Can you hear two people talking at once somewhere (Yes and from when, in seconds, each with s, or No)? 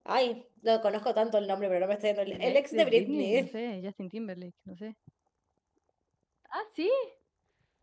Yes, from 2.2 s